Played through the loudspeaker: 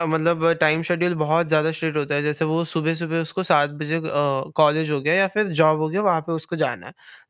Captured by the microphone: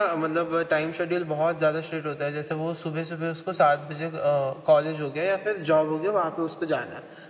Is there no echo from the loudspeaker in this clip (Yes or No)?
No